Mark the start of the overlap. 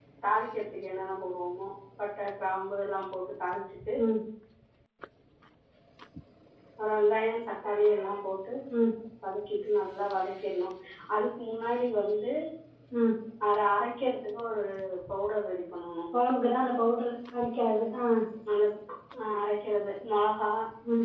none

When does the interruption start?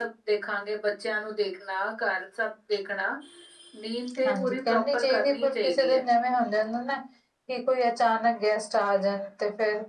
4 s

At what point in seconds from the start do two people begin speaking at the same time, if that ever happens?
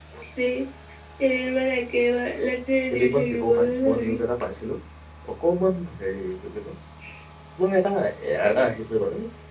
3 s

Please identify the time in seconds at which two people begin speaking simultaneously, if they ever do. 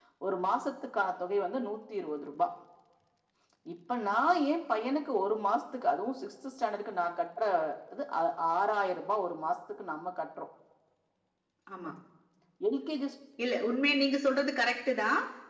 none

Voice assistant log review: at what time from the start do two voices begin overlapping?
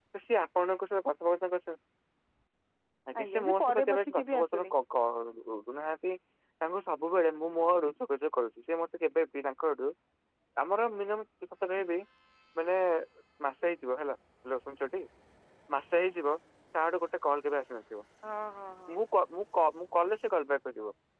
3 s

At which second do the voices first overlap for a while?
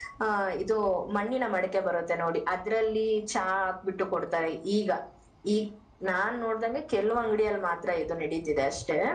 none

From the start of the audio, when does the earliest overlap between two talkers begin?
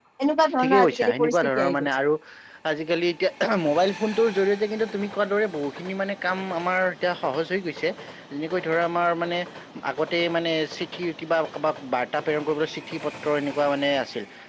1 s

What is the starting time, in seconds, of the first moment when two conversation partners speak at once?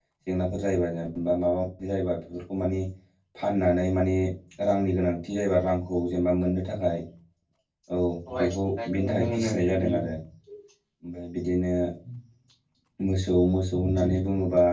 8 s

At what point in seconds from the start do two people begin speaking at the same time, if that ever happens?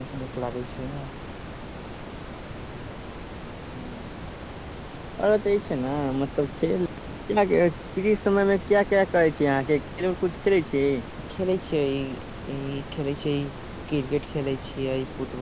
none

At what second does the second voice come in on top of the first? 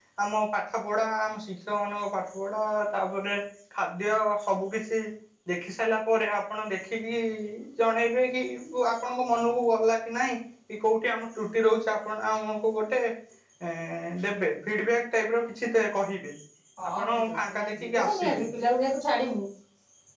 17 s

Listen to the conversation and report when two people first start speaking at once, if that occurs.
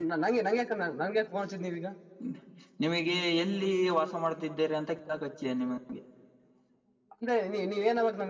none

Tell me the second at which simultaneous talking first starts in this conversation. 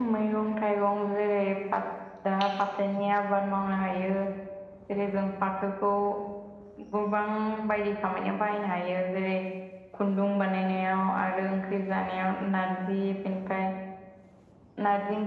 none

